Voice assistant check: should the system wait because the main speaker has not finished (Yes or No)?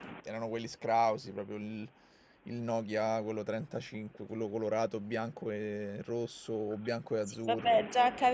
No